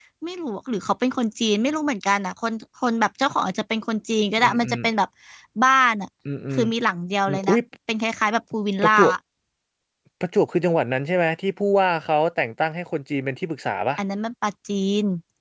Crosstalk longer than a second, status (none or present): none